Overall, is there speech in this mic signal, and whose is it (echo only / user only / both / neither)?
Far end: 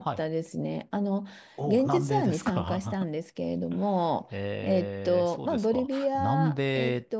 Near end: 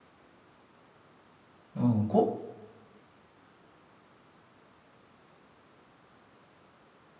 user only